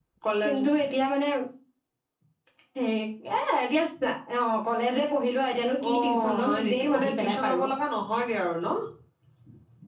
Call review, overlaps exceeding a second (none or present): present